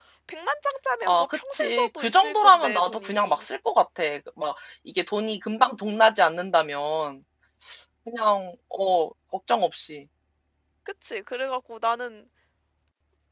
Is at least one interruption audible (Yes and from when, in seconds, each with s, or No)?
Yes, from 1.0 s